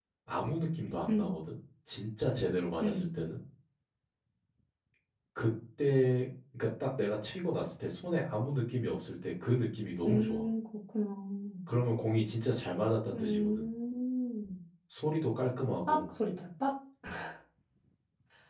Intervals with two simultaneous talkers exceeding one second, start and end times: none

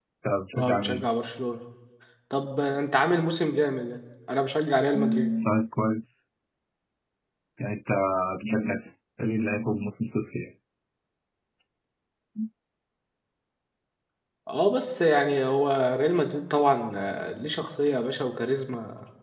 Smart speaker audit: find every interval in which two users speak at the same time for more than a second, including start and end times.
none

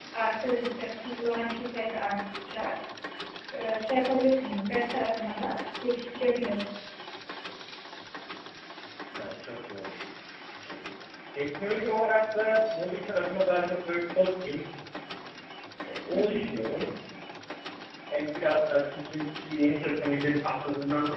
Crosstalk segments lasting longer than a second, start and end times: none

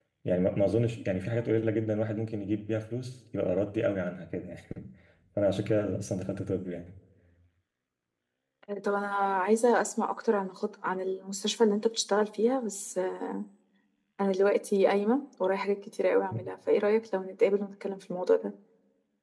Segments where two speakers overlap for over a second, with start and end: none

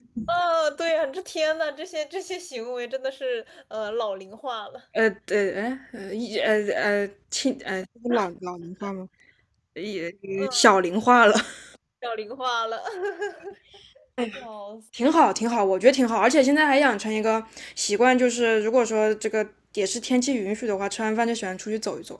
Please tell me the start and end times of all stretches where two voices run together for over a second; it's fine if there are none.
none

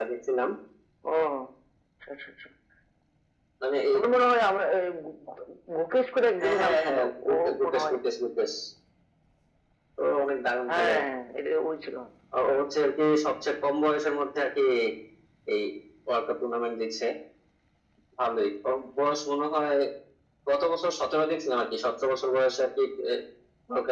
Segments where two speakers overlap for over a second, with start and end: 6.4-8.0

